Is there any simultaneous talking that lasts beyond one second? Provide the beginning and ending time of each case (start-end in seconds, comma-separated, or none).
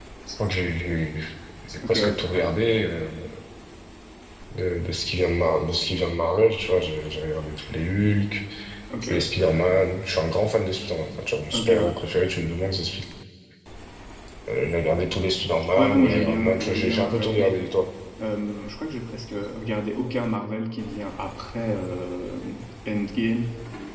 15.7-17.6